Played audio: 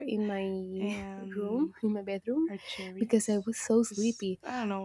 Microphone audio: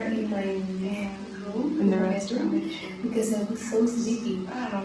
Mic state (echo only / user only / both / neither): both